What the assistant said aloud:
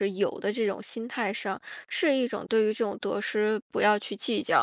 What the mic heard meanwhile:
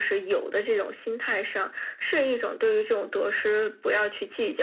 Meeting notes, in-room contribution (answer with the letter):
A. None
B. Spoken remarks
A